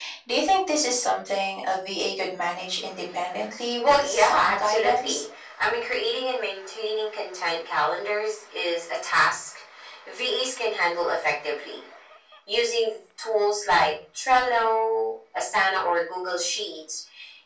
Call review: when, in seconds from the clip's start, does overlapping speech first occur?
3.8 s

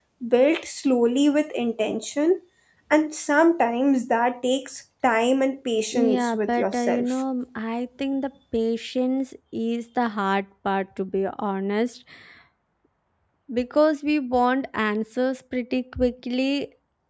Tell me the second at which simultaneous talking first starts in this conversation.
5.9 s

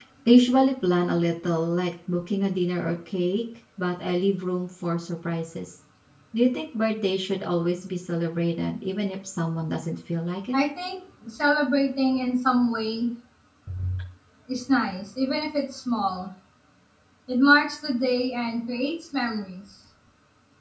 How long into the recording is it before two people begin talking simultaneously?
none

